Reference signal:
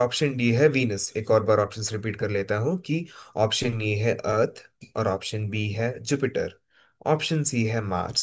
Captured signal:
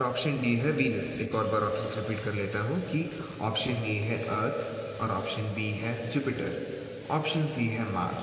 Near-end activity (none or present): none